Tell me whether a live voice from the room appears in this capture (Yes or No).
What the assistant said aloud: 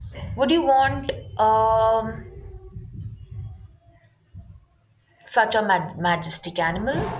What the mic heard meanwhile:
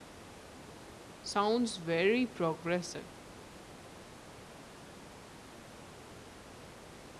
Yes